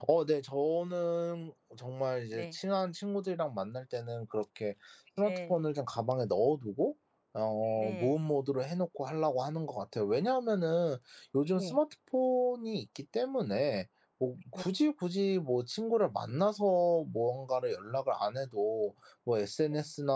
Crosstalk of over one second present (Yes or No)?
No